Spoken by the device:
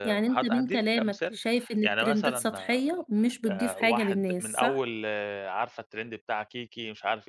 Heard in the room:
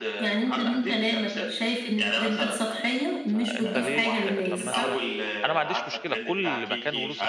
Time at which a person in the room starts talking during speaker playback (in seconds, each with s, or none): 3.3 s